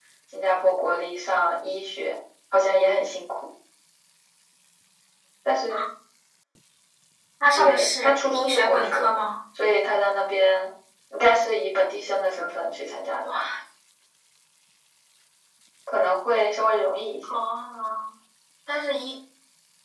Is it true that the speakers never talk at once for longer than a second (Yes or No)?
No